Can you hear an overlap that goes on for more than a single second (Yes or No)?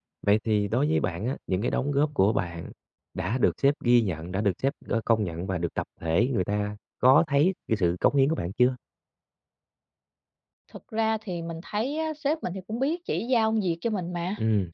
No